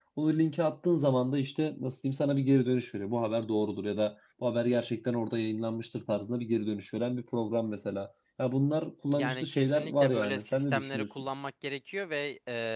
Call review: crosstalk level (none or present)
present